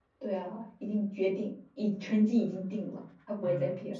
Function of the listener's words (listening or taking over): taking over